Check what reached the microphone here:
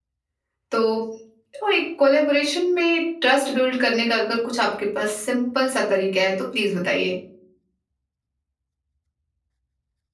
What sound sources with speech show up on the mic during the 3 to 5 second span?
user only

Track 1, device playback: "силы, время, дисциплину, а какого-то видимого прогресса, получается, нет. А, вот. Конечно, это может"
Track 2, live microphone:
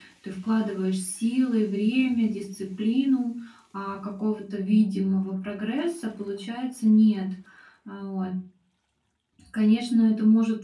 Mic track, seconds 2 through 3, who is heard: echo only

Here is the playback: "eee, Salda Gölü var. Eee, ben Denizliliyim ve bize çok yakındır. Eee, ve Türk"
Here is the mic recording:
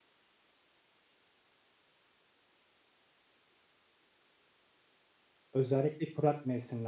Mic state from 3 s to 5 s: neither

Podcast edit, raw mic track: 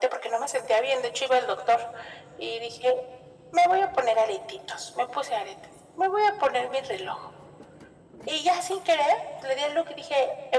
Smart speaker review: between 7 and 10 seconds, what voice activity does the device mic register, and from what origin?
echo only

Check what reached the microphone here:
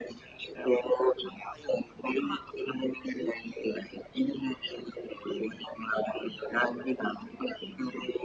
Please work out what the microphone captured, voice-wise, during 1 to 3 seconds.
echo only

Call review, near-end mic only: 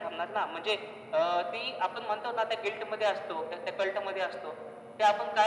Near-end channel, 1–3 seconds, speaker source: echo only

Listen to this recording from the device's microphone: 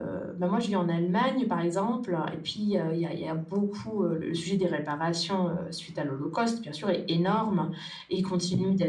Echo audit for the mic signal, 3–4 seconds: echo only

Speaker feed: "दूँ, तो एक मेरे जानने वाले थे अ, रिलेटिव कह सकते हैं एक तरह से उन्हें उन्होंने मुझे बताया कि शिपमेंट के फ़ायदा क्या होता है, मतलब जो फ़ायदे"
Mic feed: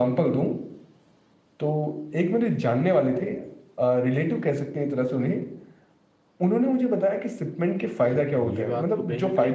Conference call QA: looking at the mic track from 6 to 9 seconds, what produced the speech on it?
both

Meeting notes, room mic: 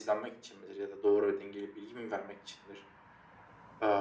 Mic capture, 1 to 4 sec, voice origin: echo only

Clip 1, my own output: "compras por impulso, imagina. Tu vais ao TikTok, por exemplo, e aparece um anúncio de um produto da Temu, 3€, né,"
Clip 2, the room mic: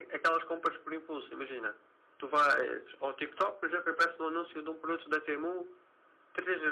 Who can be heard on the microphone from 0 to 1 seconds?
echo only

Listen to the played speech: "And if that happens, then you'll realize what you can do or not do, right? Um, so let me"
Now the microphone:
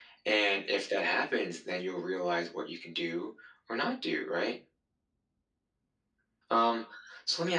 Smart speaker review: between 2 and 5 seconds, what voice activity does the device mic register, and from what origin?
echo only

